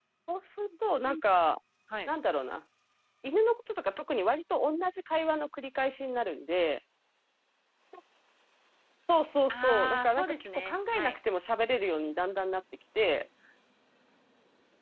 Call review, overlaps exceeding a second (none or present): present